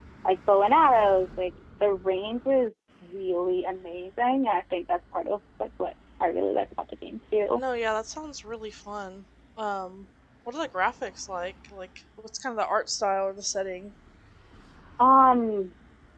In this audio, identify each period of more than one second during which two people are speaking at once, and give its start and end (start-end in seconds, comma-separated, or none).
none